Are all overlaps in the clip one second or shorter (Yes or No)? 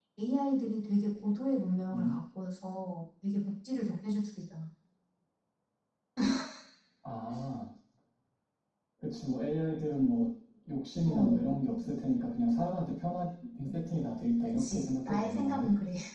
No